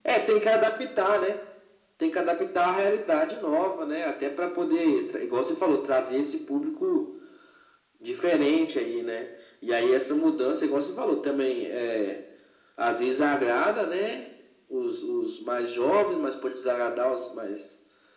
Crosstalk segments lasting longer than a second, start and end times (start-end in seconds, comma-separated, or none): none